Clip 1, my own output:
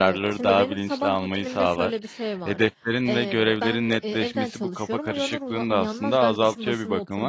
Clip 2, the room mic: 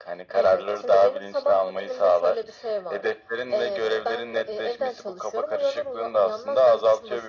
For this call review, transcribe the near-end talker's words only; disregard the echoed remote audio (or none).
none